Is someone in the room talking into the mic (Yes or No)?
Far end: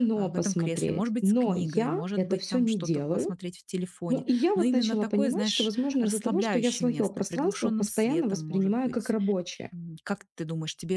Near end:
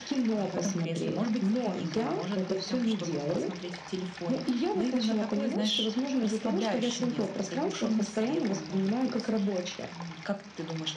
No